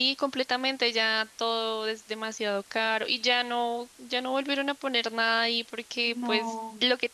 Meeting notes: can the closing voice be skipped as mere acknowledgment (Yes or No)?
Yes